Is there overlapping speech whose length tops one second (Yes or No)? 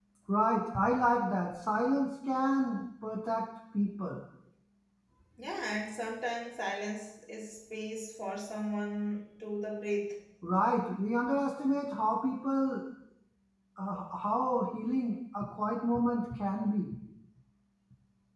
No